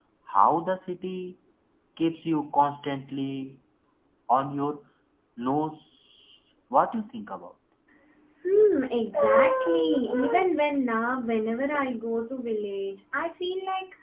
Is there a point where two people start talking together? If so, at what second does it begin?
none

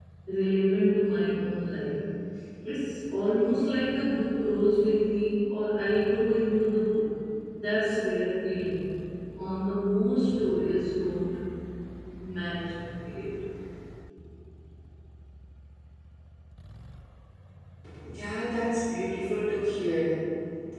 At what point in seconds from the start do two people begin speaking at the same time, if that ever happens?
none

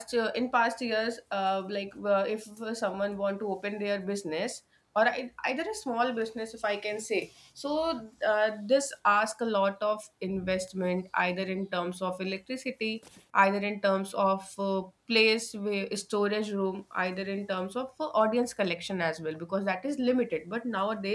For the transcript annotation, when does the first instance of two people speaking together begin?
none

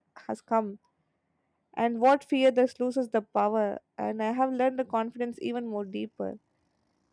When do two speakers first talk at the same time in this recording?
none

